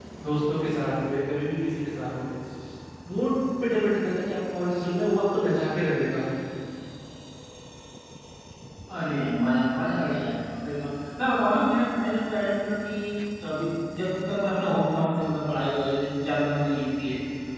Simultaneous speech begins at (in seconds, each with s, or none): none